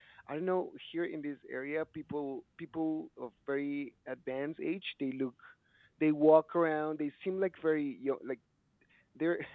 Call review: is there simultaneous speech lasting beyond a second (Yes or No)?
No